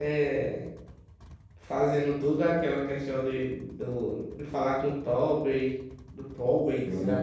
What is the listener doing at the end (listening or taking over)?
taking over